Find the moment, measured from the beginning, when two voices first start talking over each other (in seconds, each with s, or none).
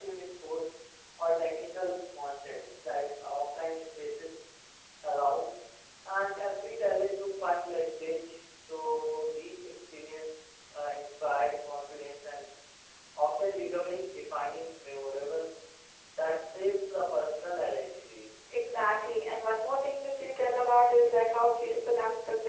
none